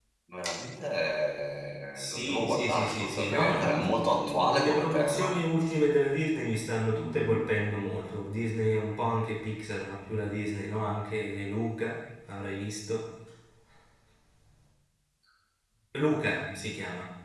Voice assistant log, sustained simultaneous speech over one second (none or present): present